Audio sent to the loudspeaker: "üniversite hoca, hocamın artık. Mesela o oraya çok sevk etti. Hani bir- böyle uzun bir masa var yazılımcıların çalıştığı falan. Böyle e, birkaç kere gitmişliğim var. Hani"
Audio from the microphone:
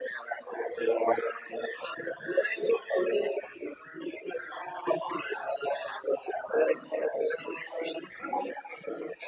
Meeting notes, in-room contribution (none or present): none